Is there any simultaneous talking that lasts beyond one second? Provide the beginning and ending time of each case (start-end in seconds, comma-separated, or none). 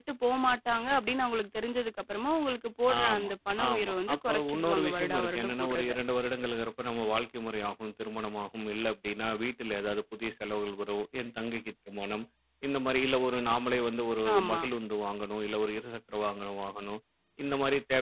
3.7-5.9